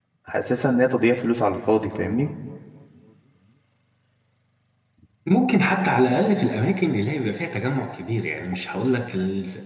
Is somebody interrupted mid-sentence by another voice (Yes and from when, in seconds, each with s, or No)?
No